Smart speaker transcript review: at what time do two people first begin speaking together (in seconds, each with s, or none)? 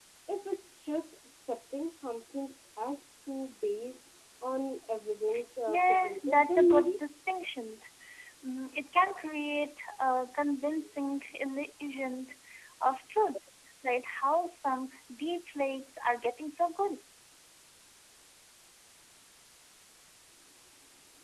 5.7 s